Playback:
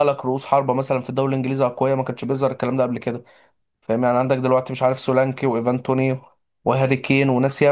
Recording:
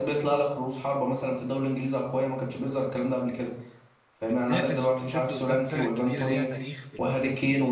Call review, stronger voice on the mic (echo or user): echo